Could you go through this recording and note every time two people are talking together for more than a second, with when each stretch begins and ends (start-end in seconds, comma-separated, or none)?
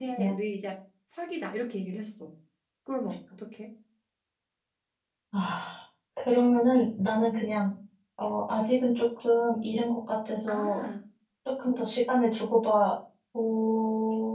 none